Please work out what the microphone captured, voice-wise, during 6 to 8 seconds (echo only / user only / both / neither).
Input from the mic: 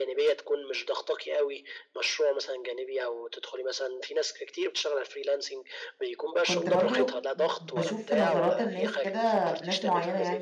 both